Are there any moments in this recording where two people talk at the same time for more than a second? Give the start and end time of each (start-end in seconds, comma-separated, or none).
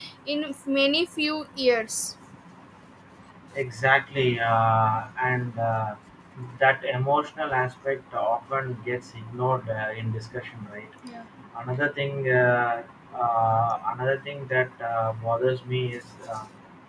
none